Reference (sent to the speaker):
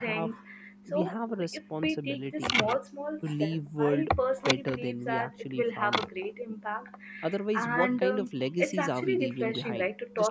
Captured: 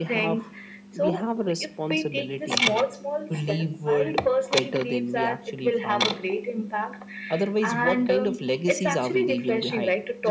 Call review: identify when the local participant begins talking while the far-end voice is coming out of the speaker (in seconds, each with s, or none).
none